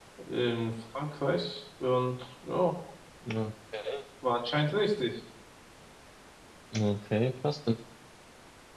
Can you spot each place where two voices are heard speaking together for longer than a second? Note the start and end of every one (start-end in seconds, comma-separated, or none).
none